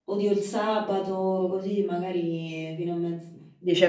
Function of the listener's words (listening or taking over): taking over